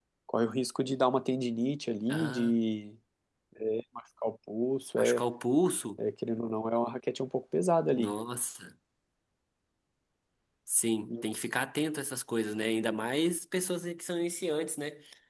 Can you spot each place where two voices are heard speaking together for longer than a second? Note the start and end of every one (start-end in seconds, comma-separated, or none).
none